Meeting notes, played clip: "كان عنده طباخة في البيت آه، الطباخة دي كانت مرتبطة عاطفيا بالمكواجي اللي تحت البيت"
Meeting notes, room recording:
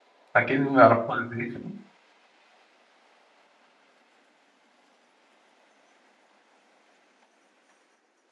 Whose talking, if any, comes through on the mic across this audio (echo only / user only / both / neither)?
user only